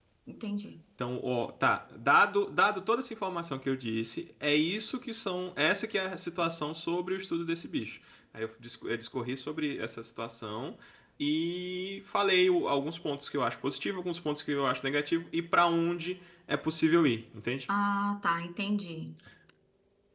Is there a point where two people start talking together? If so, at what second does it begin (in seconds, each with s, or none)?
none